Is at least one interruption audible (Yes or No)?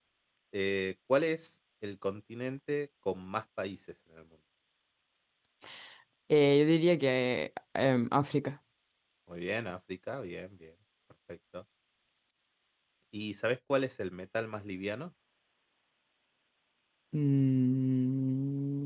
No